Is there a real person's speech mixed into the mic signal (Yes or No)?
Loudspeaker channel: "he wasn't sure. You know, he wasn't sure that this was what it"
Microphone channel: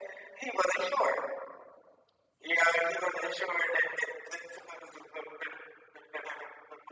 No